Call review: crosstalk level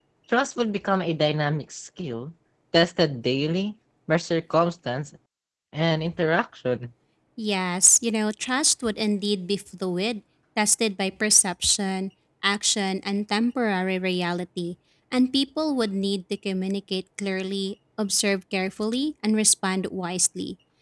none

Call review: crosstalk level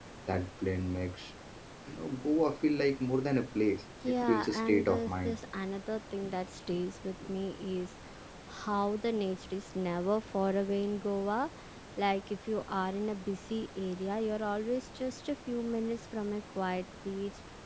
present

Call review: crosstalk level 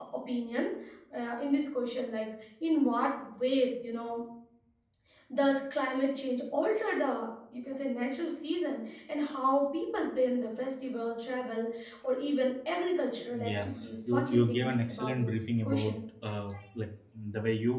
present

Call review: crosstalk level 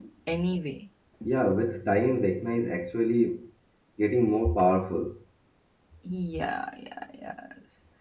none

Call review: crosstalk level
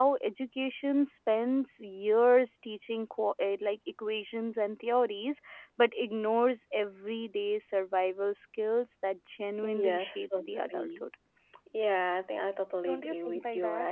present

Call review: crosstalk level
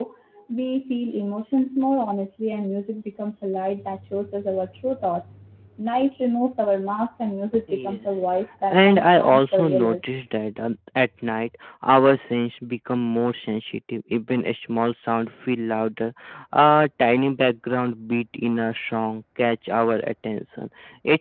present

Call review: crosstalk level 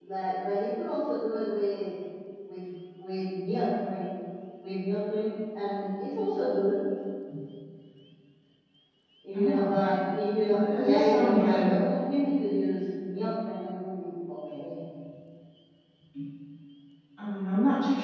present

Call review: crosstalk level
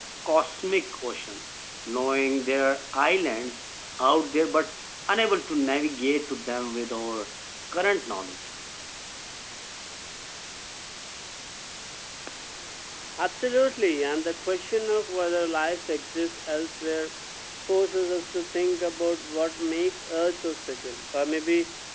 none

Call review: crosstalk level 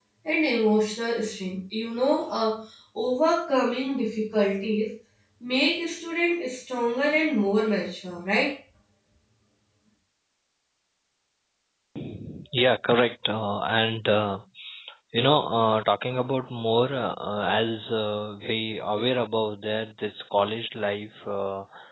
none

